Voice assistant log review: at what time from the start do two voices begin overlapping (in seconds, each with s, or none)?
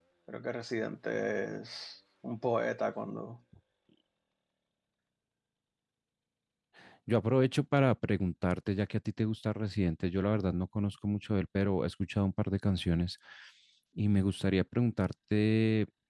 none